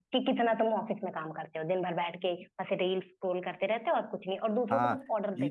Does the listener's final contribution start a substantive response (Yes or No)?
Yes